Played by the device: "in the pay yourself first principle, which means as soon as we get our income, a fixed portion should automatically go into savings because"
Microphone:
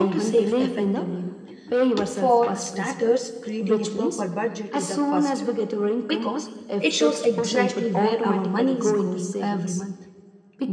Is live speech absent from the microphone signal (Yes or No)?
No